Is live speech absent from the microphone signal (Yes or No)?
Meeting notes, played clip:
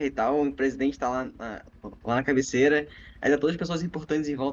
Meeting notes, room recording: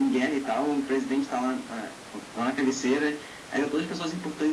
Yes